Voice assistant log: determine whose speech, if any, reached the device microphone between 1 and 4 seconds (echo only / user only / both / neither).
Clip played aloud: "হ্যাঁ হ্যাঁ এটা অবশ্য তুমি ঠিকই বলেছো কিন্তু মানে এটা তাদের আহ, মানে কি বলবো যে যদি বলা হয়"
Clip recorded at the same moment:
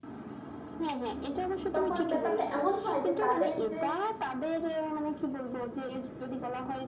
both